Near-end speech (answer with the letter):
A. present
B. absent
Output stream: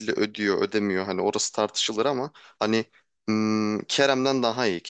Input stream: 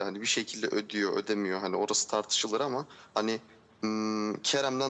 B